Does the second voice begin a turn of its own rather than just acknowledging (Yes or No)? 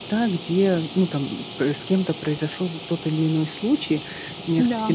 No